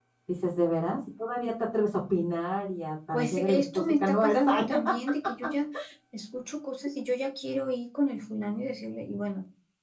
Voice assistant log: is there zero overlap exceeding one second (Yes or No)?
No